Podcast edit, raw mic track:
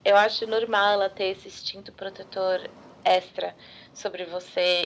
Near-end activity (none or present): none